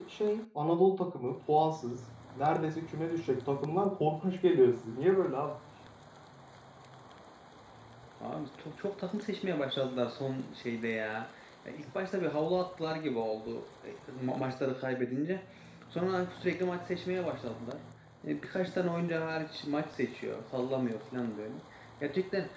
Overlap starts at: none

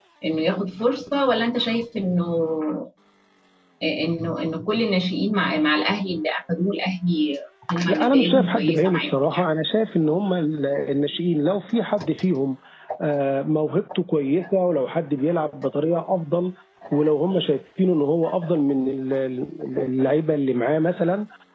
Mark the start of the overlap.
7.9 s

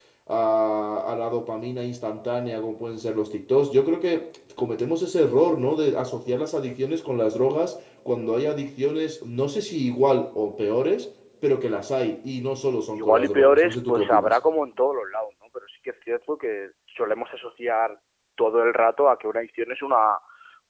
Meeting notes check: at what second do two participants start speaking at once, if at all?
12.9 s

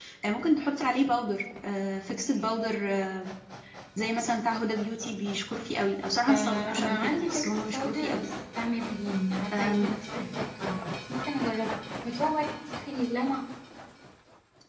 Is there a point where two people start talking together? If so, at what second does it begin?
6.3 s

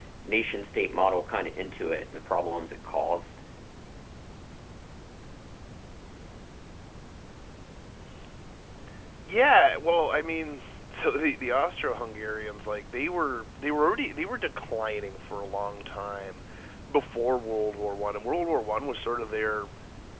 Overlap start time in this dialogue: none

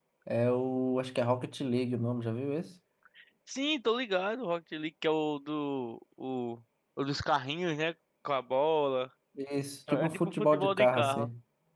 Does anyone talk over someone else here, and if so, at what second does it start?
9.9 s

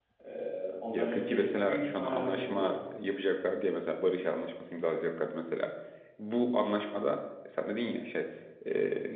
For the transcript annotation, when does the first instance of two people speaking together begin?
0.9 s

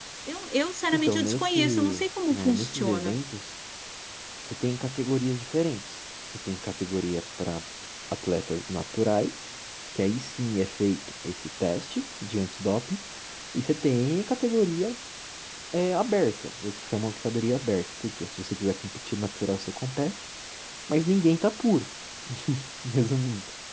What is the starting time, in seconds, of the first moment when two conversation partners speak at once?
0.9 s

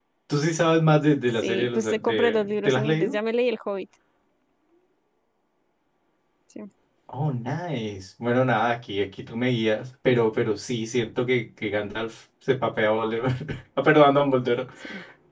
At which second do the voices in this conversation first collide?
1.4 s

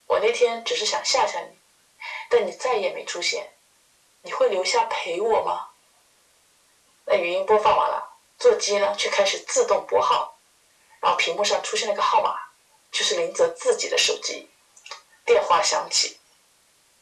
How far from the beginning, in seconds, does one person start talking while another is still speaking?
none

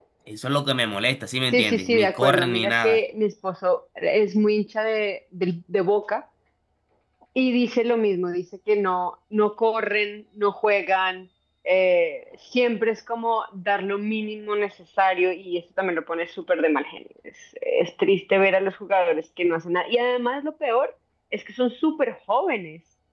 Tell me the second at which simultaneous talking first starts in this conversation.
1.5 s

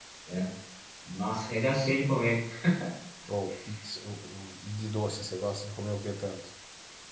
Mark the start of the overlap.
none

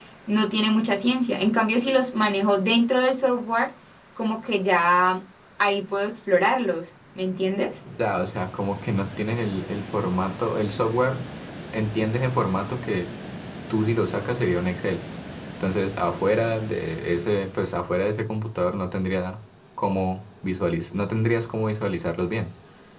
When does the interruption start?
none

